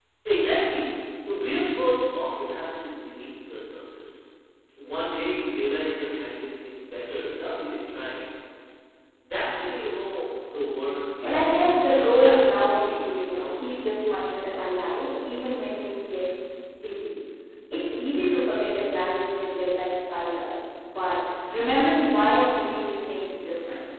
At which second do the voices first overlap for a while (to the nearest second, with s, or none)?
11 s